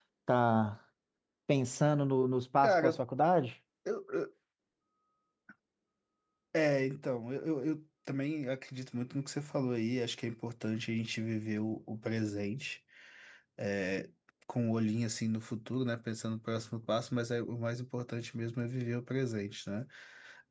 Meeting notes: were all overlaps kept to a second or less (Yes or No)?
Yes